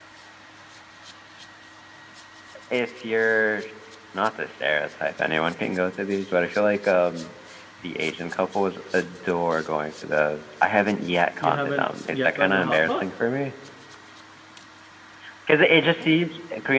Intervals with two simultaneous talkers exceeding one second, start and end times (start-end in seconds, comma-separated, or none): 11.4-13.0